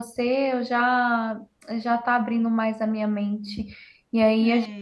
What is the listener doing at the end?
listening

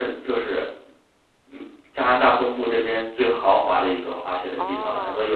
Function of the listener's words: listening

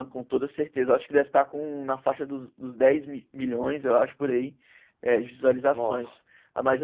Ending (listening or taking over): listening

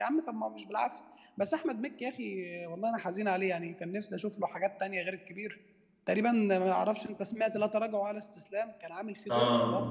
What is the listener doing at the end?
taking over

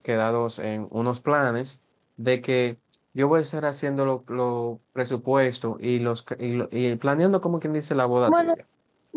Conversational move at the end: taking over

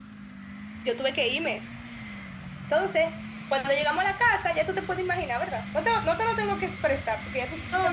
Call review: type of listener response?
taking over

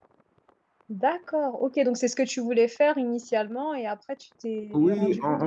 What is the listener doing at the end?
taking over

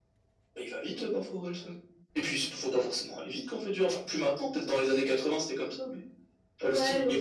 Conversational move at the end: taking over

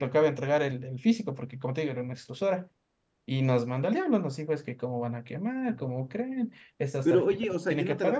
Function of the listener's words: taking over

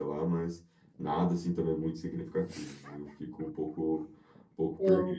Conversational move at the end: listening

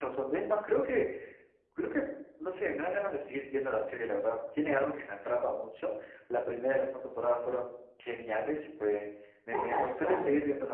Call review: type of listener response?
listening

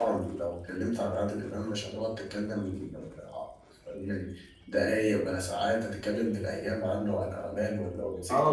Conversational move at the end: taking over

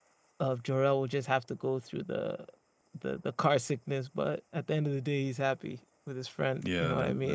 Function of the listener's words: taking over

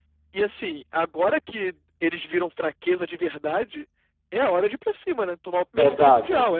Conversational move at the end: taking over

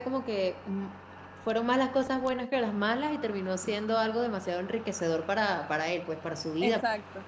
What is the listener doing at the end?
taking over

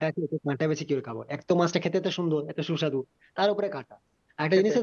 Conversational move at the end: listening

